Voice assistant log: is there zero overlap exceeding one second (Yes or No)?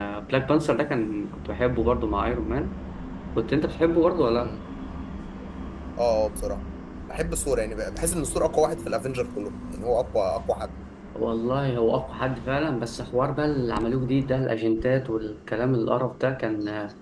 Yes